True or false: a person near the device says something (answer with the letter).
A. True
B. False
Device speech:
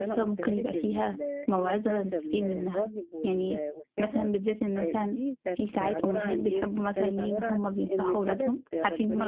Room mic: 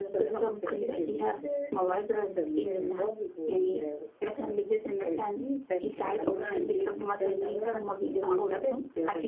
B